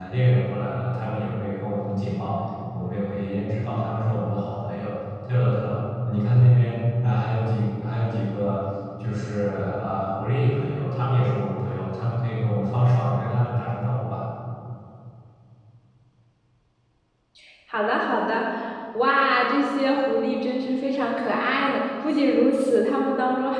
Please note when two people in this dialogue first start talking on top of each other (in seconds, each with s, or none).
none